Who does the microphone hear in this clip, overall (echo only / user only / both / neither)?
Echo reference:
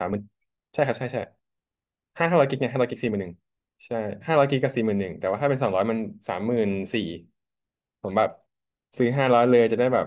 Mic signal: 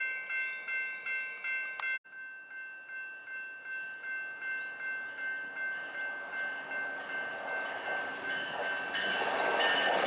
neither